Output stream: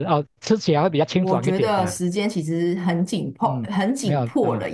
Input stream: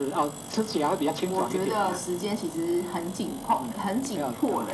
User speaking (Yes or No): No